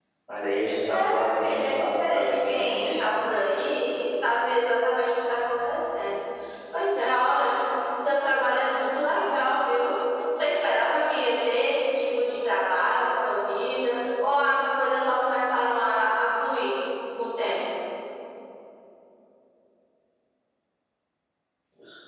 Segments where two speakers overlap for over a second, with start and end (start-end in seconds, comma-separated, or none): 0.9-3.1